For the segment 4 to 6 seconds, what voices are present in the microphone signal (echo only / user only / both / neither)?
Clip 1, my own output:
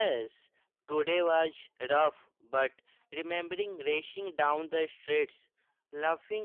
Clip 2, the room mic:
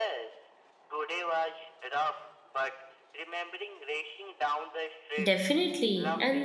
both